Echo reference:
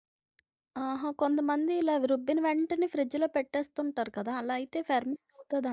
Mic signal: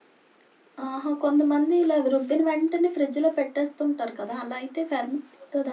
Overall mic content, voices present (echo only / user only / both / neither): echo only